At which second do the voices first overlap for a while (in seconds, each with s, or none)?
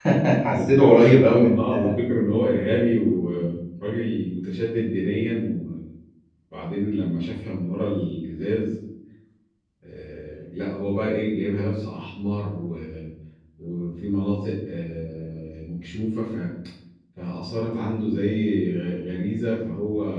0.5 s